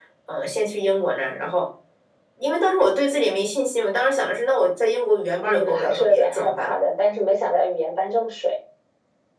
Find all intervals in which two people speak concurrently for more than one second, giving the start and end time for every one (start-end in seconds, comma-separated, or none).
5.4-6.7